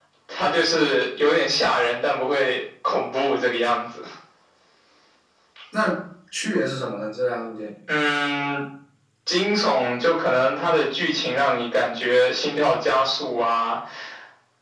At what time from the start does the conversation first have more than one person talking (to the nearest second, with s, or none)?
none